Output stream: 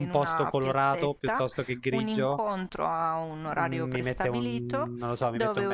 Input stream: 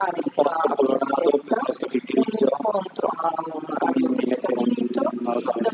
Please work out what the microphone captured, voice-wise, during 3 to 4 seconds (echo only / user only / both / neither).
echo only